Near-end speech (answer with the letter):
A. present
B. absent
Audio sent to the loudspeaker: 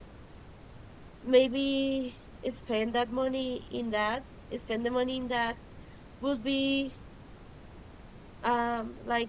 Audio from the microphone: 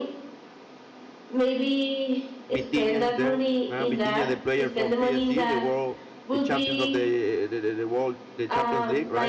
A